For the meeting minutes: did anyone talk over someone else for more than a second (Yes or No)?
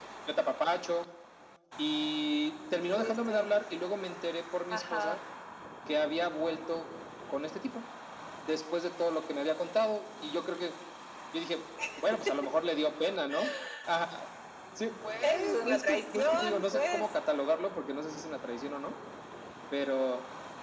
Yes